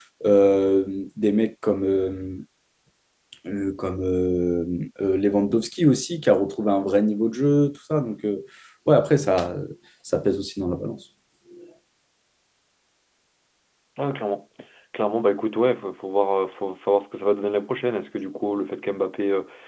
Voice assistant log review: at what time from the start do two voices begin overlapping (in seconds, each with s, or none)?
none